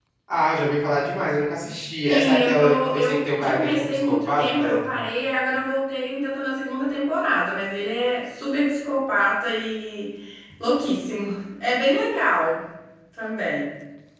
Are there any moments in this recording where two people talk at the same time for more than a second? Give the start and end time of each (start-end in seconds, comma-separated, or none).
2.0-4.8